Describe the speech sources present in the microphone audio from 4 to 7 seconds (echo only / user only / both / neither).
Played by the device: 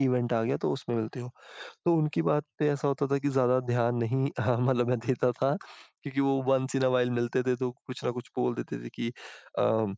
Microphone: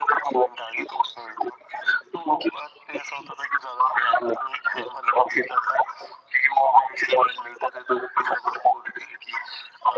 echo only